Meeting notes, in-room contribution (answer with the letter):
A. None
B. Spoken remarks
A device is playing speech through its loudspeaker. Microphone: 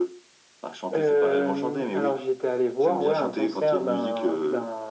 A